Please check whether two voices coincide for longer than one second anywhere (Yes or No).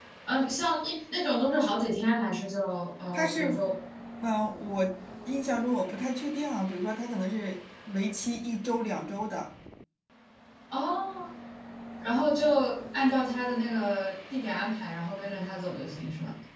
No